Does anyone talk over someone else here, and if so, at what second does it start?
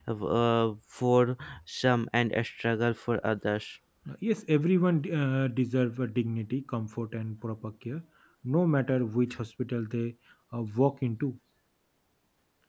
none

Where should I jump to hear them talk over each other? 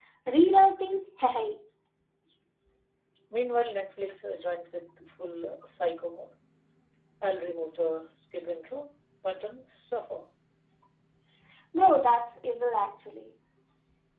none

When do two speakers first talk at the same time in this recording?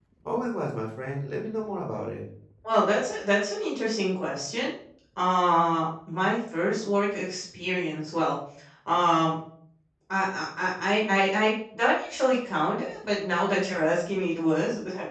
none

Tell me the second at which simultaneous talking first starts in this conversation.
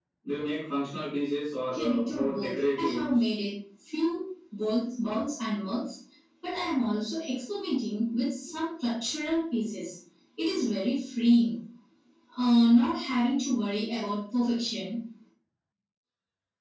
1.7 s

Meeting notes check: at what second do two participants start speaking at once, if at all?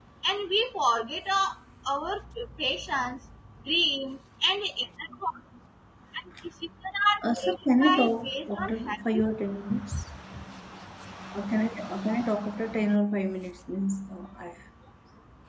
7.2 s

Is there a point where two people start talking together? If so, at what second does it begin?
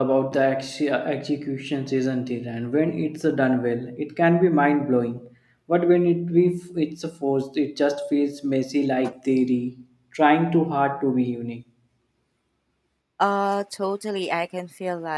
none

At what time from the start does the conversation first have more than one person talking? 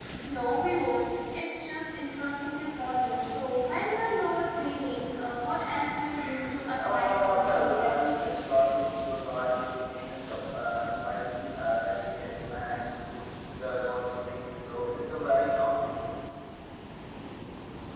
6.8 s

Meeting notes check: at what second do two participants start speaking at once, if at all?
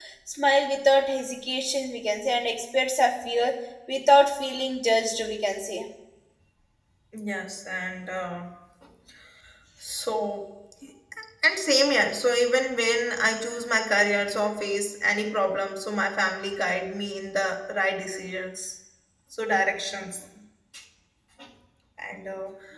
none

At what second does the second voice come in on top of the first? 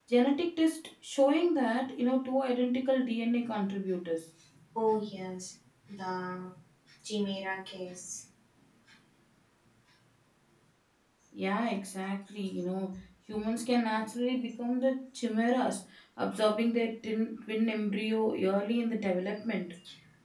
none

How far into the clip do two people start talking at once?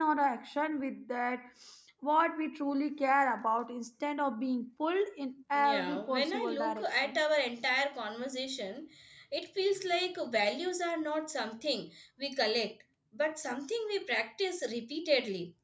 5.5 s

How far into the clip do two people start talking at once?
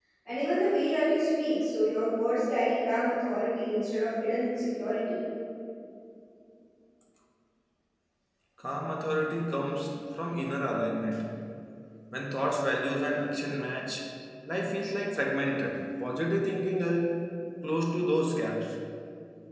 none

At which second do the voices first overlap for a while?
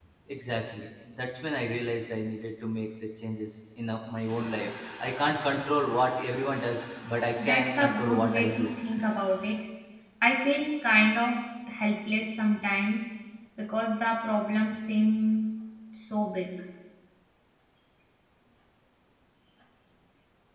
7.4 s

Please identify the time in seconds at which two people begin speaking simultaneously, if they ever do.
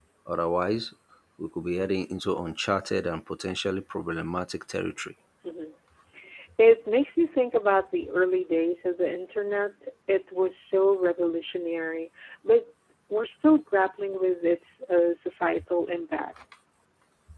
none

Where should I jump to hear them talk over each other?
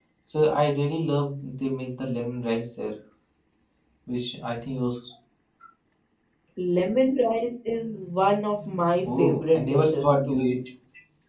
9.0 s

